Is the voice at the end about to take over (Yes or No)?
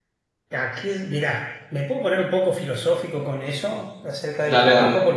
No